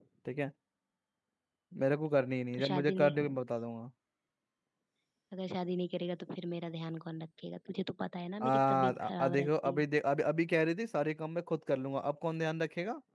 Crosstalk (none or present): present